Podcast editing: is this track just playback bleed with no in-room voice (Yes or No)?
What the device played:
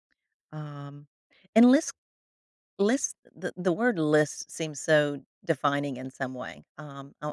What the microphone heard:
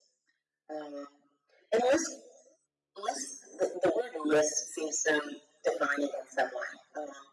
Yes